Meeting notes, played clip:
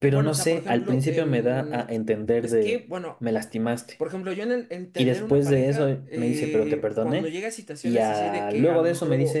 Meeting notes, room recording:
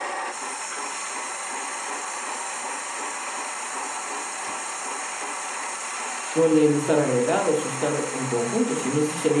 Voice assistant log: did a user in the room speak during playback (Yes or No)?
Yes